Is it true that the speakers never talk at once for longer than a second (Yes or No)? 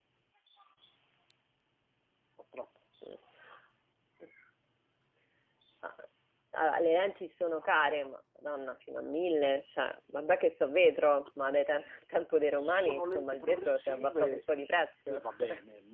No